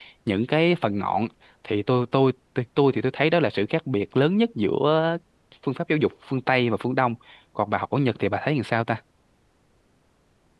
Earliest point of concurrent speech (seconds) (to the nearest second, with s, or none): none